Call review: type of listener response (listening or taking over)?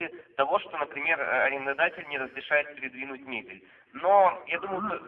listening